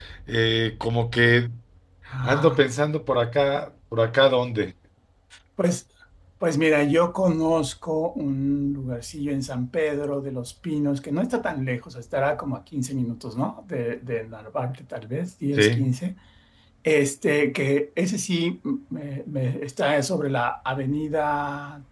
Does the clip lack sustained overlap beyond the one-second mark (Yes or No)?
Yes